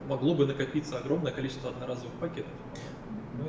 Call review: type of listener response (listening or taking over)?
taking over